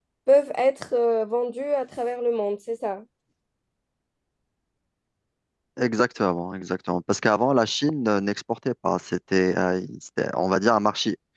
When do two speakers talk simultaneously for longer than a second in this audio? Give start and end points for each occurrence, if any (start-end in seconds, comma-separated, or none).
none